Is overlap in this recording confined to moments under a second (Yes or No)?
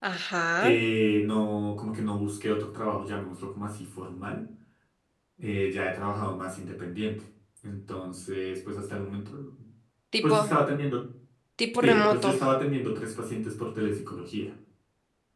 Yes